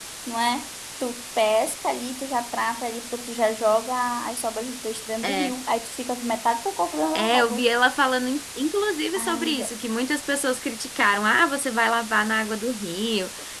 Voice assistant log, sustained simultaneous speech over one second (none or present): none